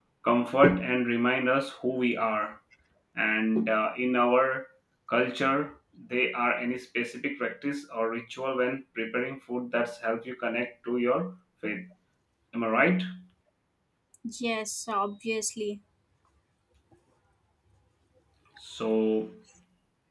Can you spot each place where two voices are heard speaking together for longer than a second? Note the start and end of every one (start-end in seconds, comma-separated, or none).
none